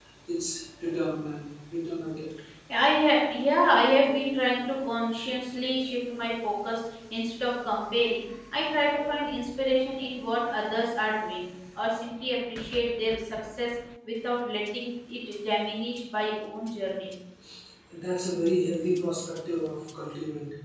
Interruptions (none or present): none